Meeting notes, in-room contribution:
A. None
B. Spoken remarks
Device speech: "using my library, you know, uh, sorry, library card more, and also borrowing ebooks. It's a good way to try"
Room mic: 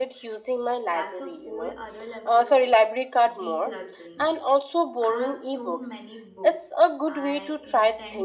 B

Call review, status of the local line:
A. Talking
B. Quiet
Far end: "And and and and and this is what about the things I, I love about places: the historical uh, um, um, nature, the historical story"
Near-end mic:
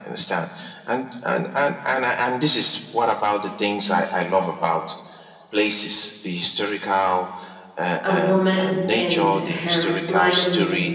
A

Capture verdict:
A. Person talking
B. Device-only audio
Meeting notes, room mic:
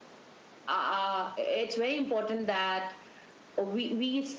B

